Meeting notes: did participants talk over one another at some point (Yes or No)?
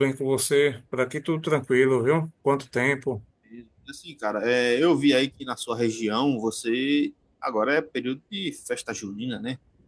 No